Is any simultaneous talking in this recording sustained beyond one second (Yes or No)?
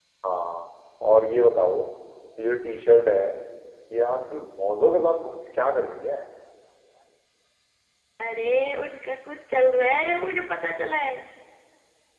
No